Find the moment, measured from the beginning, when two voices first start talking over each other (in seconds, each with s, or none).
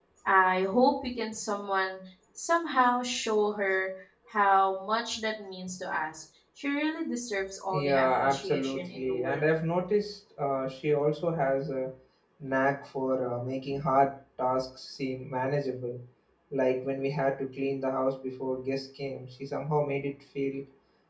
7.7 s